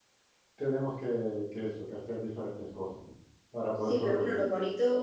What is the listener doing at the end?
taking over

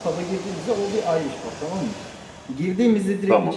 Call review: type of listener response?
listening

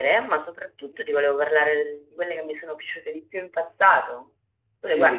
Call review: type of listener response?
taking over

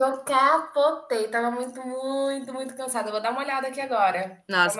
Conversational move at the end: taking over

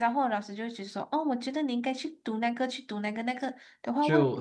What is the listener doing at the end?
listening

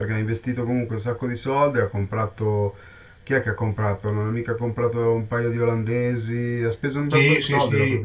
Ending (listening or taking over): taking over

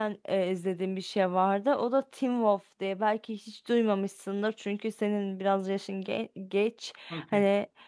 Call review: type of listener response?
listening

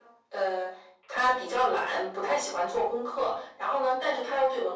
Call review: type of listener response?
listening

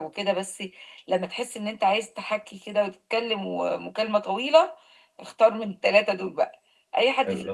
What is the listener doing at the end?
listening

